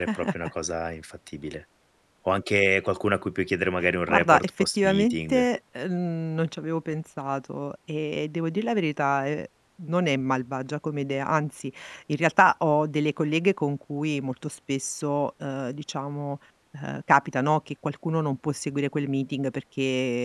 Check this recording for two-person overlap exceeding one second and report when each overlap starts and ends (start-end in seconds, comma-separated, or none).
4.1-5.4